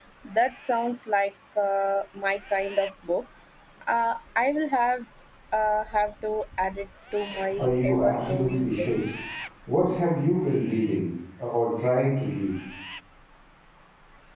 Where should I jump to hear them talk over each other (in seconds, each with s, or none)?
7.5 s